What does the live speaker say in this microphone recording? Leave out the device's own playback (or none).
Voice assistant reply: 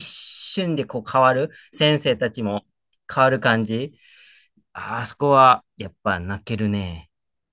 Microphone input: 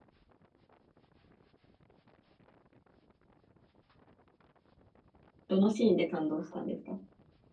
どのシーンで感動したんですか